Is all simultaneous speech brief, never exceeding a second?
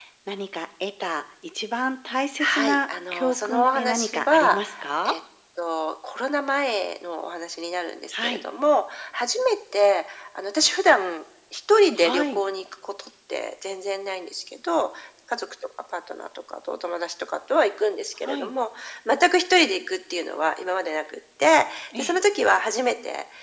No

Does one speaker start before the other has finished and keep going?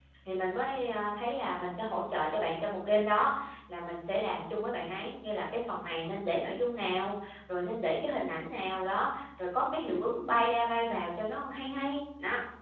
No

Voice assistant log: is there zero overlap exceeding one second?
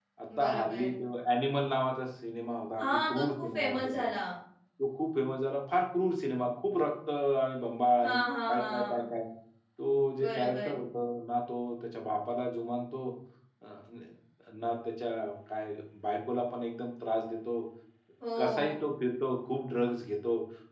No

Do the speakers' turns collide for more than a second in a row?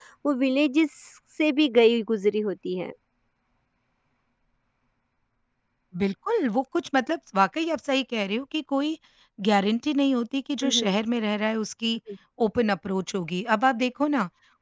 No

